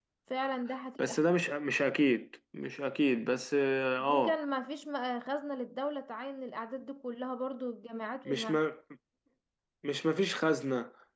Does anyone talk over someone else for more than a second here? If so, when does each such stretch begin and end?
none

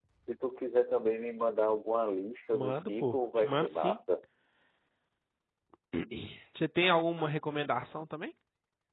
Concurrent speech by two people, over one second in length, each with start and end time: 2.5-4.0

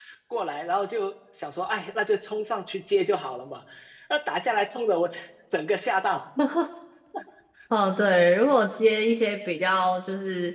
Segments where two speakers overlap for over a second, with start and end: none

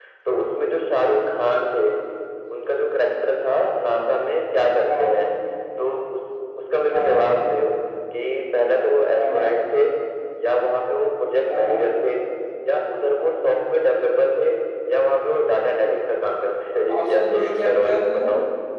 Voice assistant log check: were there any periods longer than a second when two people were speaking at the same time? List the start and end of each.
16.9-18.3

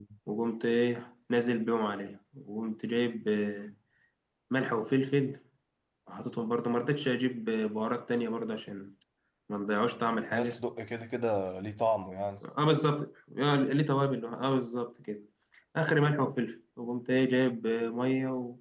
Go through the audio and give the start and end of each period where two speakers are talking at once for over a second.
none

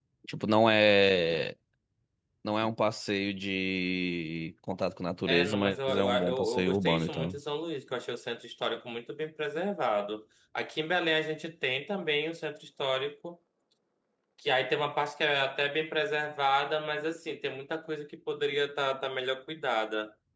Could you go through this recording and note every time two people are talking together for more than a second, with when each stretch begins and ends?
5.3-7.4

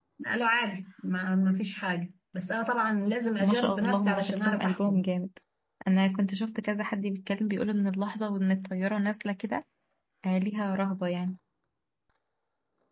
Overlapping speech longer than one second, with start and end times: 3.4-5.1

